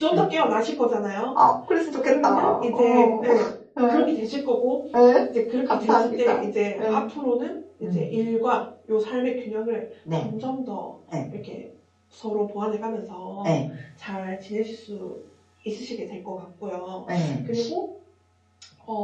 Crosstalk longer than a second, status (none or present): present